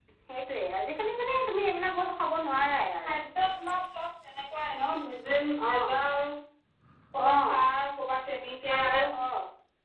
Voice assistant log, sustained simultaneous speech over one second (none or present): none